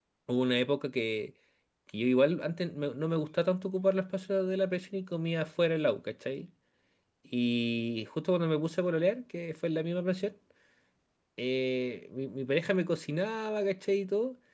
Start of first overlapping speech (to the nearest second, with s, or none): none